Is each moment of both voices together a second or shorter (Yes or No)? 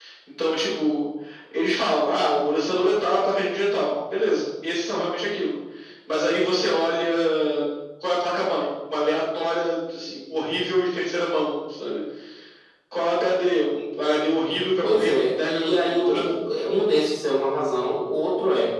No